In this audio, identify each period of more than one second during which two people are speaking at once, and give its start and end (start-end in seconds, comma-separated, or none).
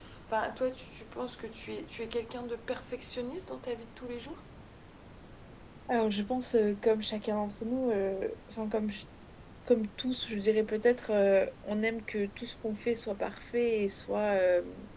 none